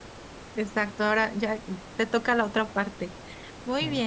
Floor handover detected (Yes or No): No